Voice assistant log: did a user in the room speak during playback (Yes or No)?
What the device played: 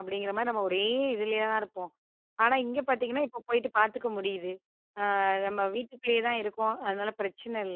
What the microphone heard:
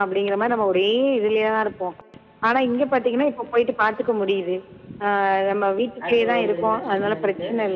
Yes